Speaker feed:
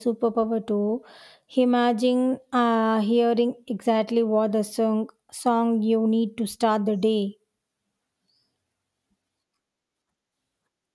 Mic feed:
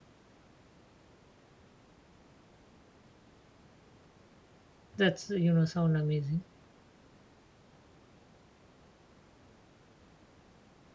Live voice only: That's, you know, sound amazing.

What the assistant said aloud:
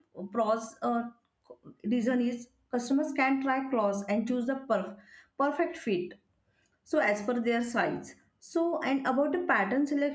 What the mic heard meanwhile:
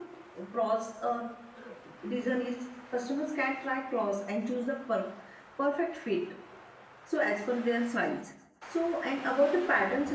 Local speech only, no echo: none

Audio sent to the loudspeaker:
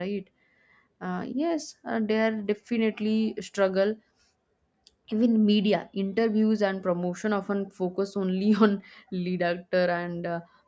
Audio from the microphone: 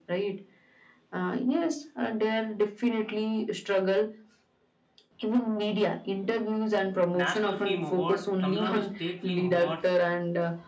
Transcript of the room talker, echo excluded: national film award tamil nadu state film awards

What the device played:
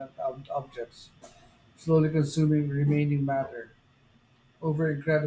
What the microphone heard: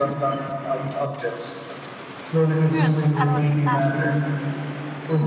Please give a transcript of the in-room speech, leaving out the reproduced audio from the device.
truths about the cosmos.

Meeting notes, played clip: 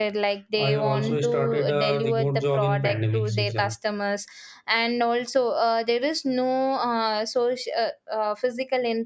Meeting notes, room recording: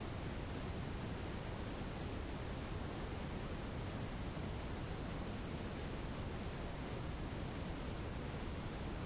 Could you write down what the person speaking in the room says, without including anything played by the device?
none

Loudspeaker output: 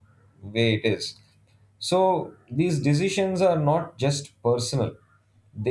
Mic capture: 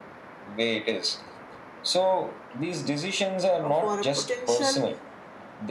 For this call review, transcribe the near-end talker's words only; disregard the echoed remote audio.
uh, for a potential

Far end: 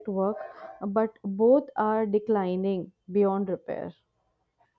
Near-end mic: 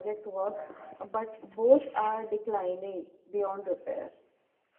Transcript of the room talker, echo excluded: none

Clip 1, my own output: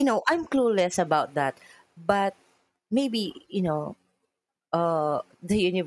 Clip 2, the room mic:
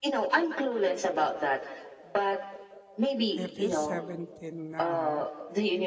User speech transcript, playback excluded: if he's 17 now,

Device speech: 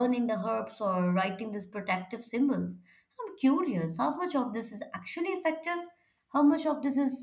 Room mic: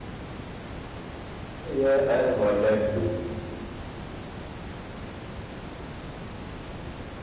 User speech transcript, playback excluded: Yeah, I have heard that too.

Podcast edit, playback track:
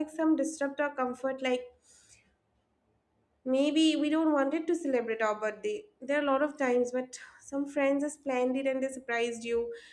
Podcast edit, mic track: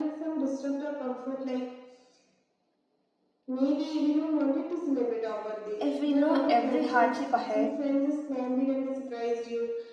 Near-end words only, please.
if we know every hardship ahead

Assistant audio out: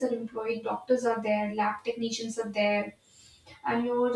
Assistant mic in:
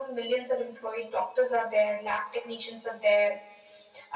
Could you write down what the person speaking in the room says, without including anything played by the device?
none

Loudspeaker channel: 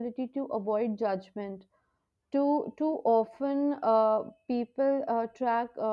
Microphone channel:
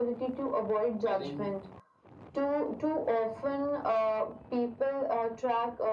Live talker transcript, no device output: I think

